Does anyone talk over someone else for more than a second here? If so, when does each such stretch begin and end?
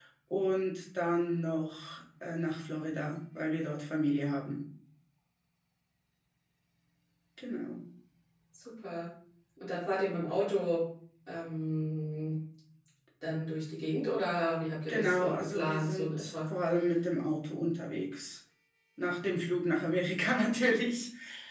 14.9-16.3

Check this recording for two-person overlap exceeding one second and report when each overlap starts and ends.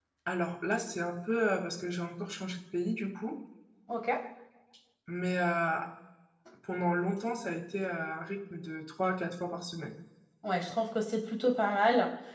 none

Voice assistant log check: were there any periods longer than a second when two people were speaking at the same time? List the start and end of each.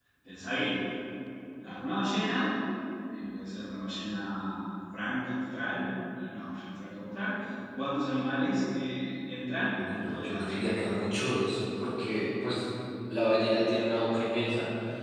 9.8-11.1

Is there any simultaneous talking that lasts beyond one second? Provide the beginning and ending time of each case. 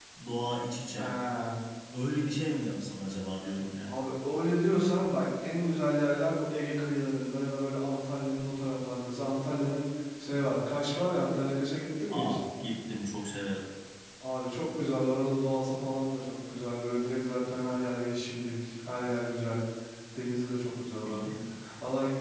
none

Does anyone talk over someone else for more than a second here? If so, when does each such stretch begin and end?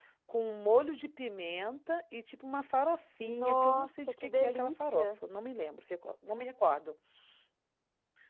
3.2-5.1

